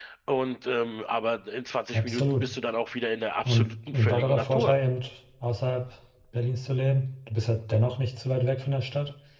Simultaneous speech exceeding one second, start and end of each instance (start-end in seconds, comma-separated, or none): 3.4-4.8